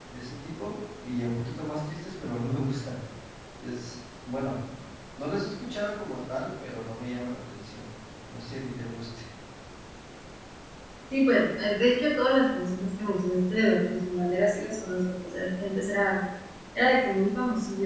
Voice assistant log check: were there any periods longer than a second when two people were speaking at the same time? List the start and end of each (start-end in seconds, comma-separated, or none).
none